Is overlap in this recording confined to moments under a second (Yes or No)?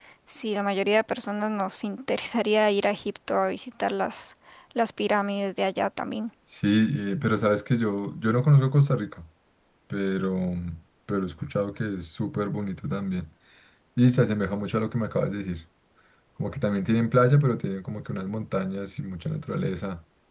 Yes